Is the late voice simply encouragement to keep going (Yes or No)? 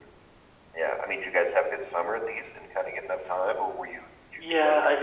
No